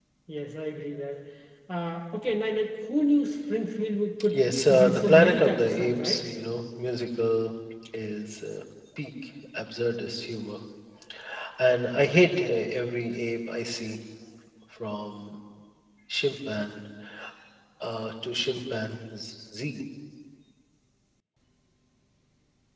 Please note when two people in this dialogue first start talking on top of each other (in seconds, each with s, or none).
4.3 s